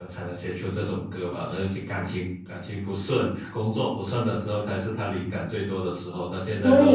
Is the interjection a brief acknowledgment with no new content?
No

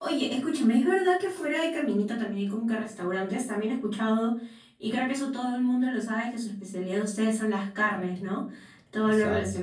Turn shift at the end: No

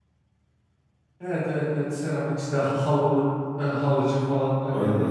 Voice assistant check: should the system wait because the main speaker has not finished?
No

